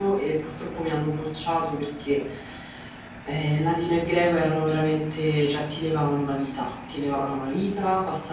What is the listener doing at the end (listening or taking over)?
listening